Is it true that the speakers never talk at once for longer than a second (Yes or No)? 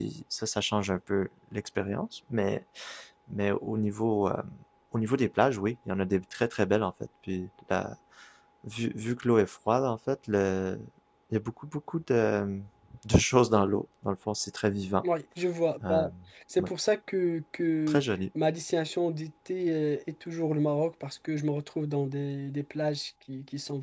Yes